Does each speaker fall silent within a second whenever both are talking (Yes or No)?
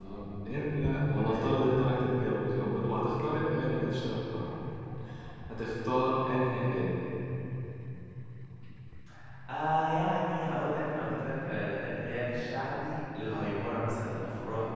Yes